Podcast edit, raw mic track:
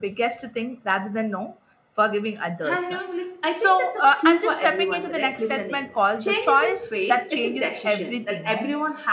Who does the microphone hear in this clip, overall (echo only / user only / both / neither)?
both